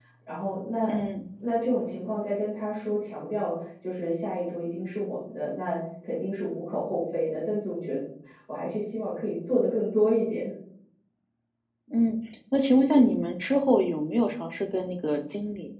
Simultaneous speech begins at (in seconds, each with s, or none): none